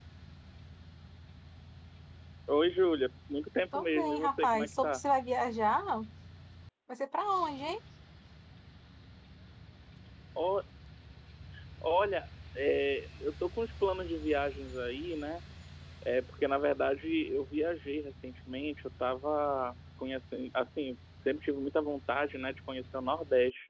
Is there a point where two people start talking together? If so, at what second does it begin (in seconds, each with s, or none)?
3.7 s